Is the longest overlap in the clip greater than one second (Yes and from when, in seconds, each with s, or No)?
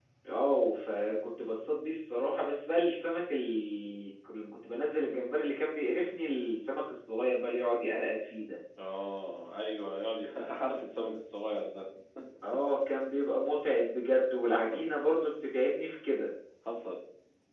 No